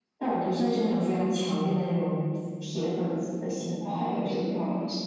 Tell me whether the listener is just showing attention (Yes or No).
No